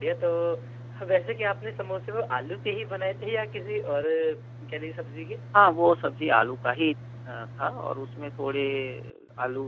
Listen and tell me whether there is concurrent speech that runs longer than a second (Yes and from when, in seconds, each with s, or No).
No